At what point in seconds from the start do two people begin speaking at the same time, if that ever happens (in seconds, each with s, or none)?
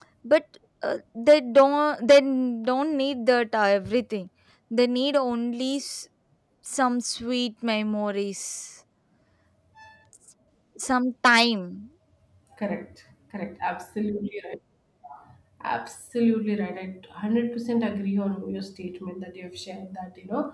none